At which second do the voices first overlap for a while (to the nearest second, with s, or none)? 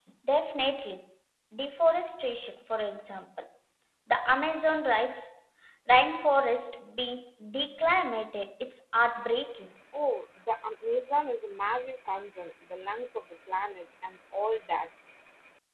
none